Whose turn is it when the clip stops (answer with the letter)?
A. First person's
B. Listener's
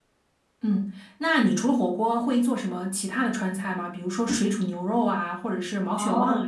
B